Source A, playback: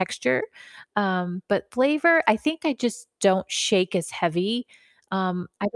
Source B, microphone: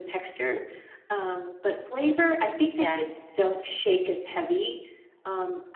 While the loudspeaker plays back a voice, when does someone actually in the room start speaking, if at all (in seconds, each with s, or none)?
2.7 s